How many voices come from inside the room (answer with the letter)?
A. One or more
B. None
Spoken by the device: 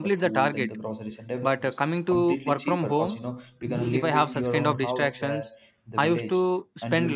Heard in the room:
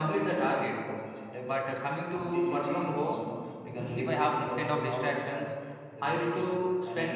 B